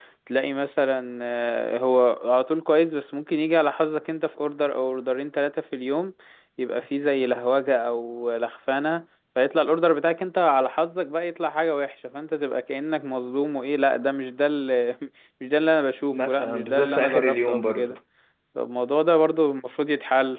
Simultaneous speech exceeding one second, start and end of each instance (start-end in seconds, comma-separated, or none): 16.1-17.9